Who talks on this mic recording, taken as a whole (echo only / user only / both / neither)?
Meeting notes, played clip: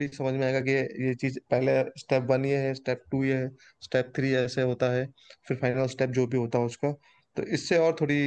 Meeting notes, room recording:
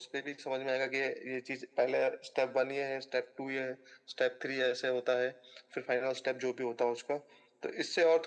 echo only